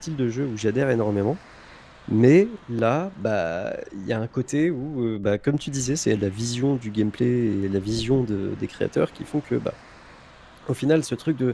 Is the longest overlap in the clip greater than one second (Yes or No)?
No